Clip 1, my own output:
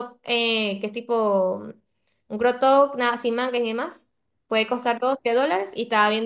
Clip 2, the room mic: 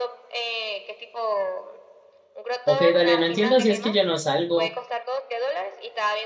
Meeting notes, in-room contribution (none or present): present